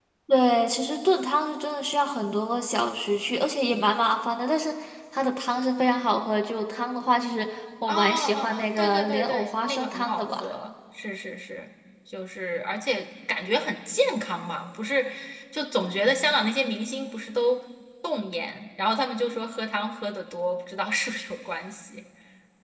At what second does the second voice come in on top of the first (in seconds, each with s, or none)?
7.9 s